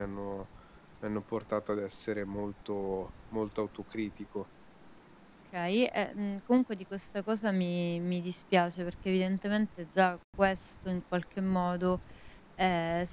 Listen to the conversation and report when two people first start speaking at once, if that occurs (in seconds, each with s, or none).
none